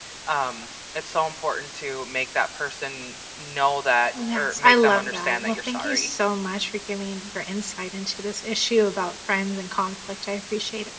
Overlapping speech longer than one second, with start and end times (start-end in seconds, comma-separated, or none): 4.3-6.1